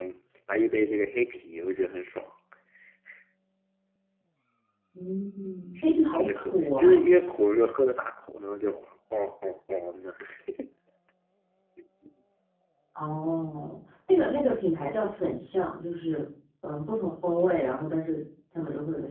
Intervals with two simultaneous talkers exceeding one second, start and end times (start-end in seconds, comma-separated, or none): 5.8-7.2